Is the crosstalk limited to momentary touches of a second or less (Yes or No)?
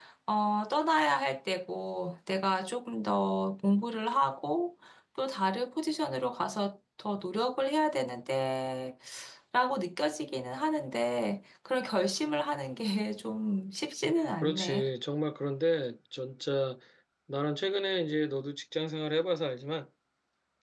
Yes